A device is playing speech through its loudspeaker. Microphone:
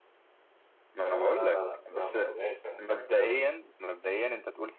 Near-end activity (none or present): present